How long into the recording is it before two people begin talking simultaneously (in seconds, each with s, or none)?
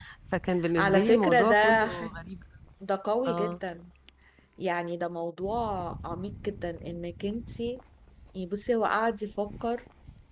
0.8 s